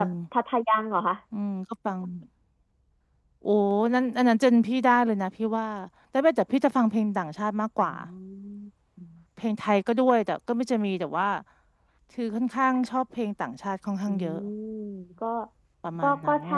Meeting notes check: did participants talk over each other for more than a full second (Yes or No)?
No